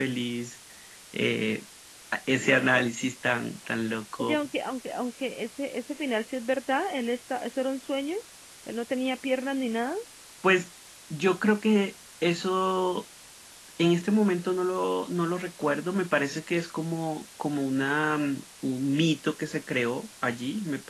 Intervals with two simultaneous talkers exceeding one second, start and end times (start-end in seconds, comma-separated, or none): none